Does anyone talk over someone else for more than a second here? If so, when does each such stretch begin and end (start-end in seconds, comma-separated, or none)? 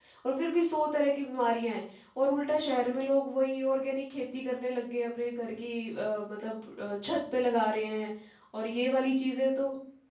none